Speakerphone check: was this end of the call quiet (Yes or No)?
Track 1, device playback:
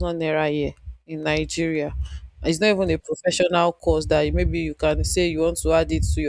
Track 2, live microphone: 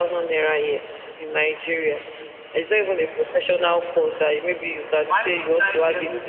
No